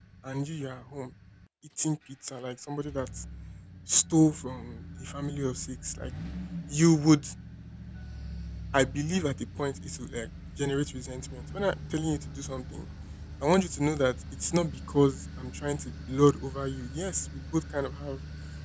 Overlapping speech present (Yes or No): No